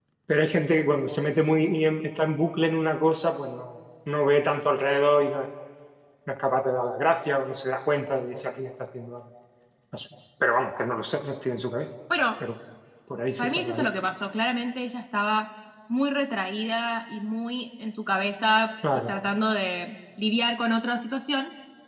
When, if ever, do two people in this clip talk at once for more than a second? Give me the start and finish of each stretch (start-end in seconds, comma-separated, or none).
none